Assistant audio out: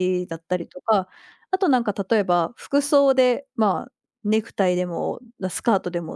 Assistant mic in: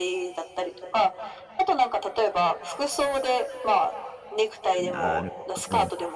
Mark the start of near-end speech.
4.8 s

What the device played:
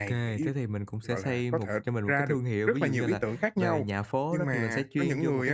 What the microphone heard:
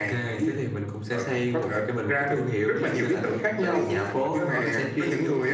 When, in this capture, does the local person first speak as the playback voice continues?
3.3 s

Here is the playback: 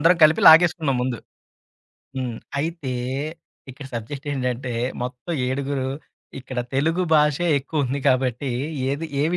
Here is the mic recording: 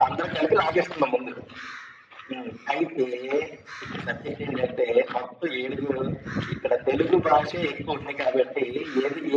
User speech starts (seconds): none

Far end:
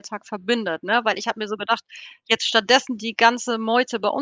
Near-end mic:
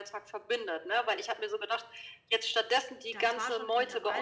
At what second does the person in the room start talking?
3.1 s

